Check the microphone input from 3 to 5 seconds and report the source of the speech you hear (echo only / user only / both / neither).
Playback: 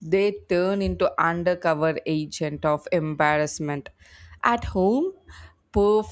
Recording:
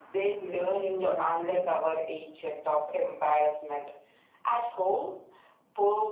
echo only